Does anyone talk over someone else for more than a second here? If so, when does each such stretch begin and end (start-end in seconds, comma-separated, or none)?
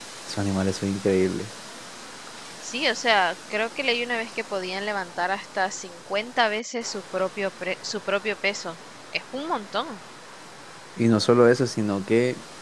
none